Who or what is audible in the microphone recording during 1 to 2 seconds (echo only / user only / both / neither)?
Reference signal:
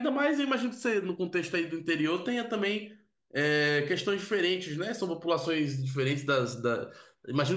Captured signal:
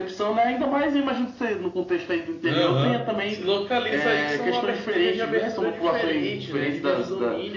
echo only